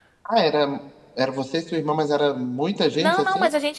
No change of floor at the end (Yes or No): No